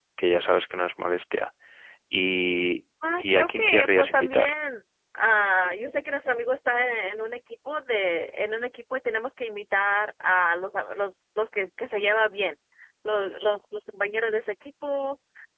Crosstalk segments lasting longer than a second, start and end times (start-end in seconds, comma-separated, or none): 3.2-4.5